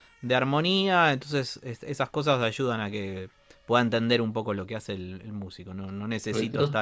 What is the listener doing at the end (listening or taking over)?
listening